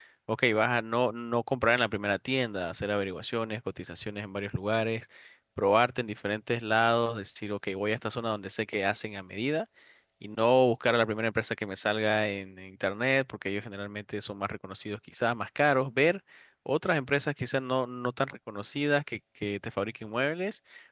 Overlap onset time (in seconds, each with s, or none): none